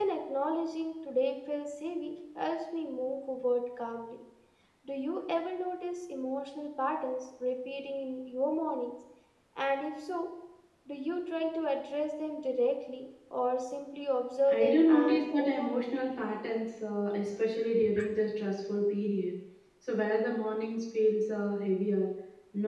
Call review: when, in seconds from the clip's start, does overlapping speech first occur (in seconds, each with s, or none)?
14.5 s